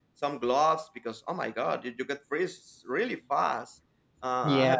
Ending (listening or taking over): listening